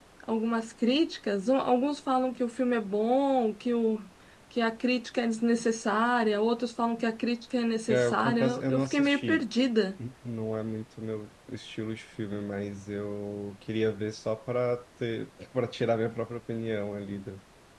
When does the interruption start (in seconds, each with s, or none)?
7.9 s